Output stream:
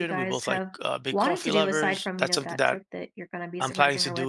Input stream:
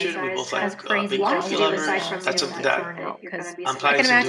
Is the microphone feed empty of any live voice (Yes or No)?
No